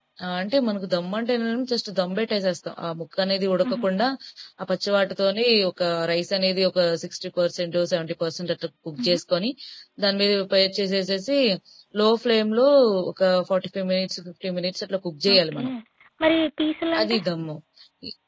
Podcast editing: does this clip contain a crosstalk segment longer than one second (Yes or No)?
No